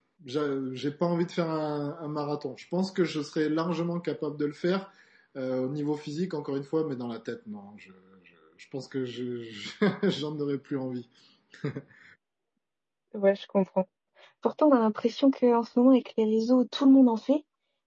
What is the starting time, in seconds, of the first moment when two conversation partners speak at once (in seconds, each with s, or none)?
none